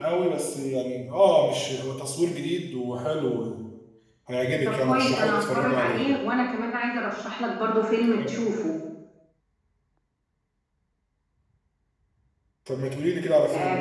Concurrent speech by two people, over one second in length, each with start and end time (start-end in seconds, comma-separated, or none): 4.7-6.1